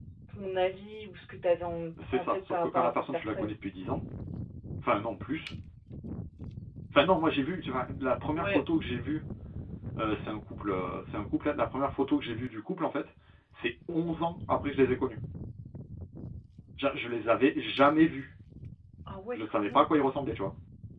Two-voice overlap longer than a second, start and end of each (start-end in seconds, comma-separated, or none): 2.1-3.5